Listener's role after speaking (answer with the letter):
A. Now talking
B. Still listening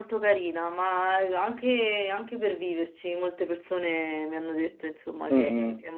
A